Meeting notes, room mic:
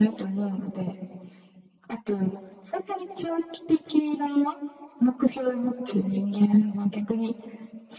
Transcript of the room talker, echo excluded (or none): none